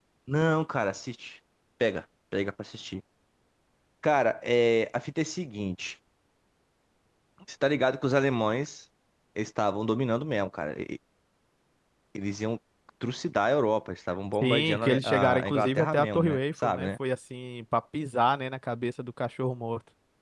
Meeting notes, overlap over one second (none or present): present